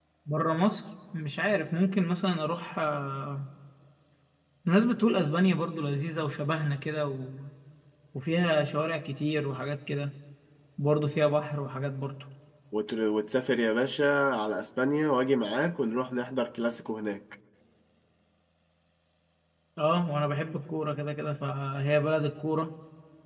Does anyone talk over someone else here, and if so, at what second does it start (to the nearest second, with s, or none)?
none